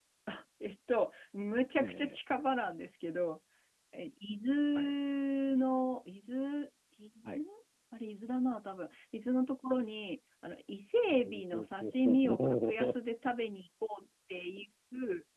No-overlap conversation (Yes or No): No